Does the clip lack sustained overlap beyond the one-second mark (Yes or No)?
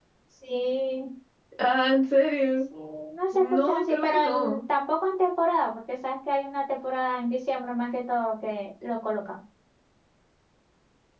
No